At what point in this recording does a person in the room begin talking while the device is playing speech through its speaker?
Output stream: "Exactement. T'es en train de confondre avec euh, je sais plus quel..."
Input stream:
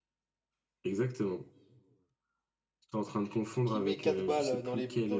3.7 s

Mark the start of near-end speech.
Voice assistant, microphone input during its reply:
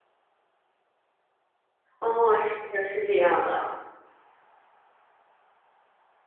2.0 s

